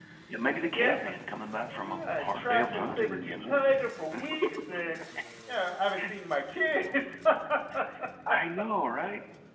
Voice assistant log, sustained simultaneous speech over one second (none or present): present